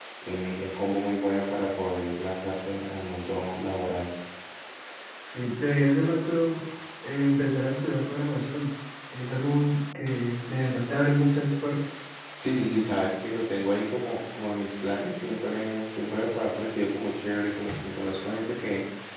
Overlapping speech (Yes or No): No